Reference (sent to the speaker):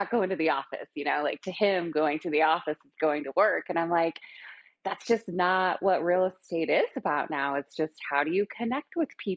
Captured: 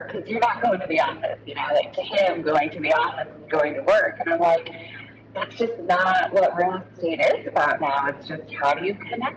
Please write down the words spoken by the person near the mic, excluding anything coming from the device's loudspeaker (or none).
none